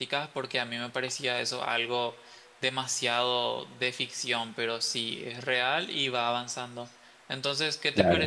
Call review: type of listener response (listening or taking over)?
listening